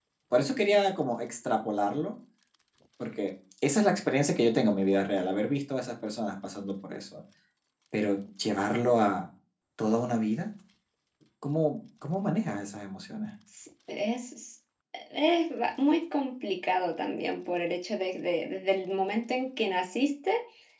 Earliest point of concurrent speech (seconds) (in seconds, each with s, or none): none